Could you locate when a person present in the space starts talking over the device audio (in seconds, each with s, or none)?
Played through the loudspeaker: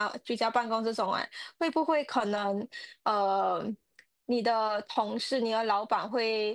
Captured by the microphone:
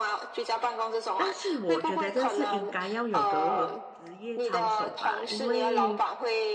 1.1 s